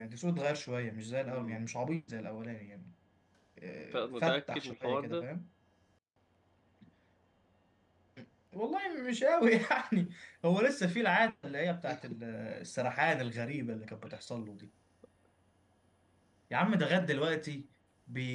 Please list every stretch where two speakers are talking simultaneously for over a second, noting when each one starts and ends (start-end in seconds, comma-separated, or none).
3.9-5.3